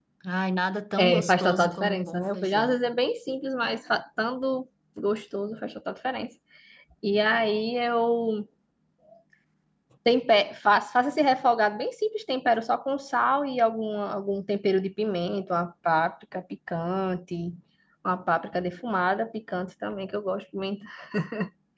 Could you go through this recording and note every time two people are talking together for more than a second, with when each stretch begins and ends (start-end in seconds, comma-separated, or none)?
1.0-2.8